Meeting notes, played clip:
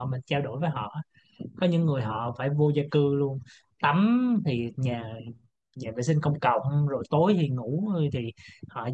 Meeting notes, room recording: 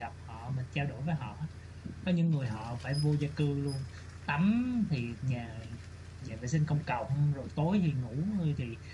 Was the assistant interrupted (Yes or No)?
No